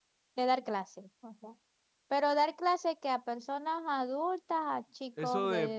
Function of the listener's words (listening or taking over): taking over